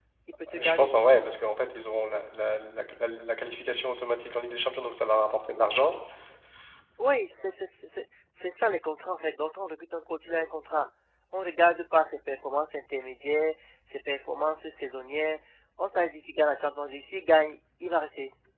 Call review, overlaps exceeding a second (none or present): none